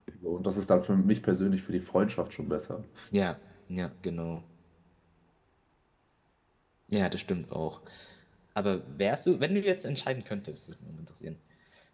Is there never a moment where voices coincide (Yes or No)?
Yes